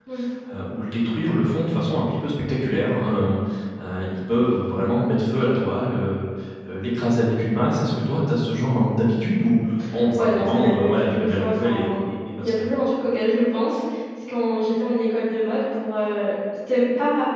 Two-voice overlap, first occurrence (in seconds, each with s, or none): 10.1 s